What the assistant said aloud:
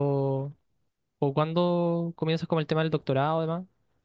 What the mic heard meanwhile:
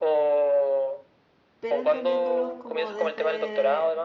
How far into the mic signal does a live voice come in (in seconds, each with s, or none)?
1.6 s